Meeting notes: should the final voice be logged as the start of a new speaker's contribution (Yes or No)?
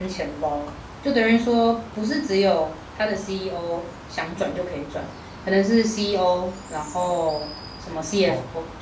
Yes